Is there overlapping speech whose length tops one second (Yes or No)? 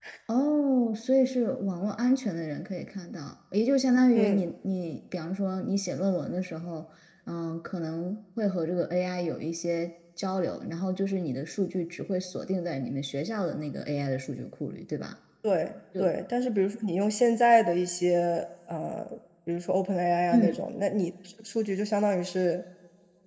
No